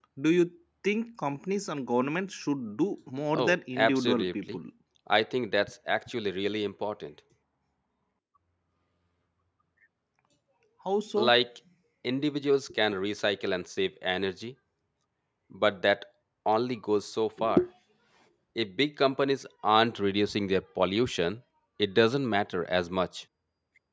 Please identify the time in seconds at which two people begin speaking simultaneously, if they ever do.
3.4 s

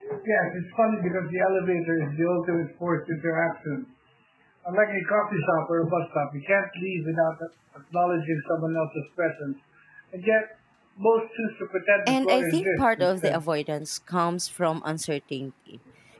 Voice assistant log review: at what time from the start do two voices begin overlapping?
12.1 s

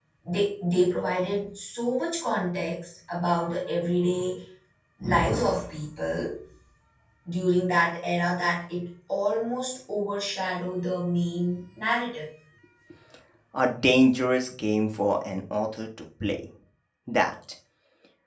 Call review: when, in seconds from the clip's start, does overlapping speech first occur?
none

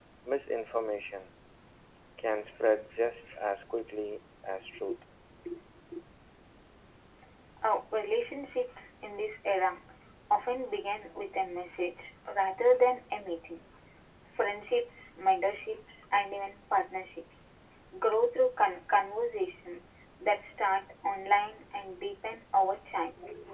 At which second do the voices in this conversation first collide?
none

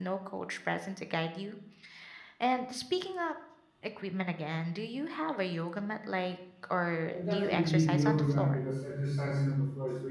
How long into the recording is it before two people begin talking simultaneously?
7.1 s

